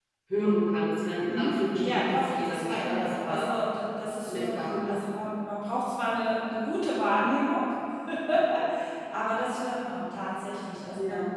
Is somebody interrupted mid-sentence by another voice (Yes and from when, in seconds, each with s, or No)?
Yes, from 1.3 s